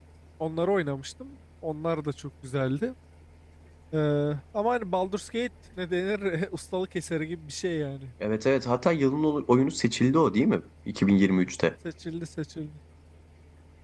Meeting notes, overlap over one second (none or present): none